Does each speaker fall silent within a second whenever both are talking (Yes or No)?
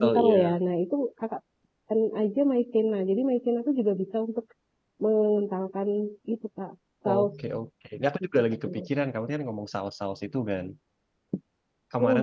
Yes